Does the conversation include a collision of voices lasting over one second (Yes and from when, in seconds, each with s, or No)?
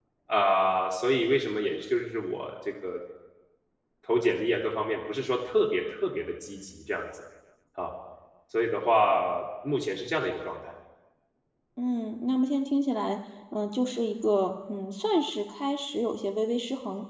No